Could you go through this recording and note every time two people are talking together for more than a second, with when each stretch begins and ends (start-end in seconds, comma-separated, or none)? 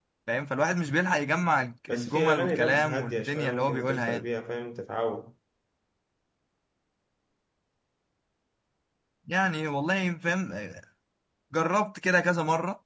1.9-4.2